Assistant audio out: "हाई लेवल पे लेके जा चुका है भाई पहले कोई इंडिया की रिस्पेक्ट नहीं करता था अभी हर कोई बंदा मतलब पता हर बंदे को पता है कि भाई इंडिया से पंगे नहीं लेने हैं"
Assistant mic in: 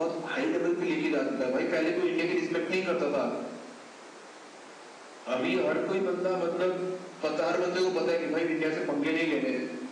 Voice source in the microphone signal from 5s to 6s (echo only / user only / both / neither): both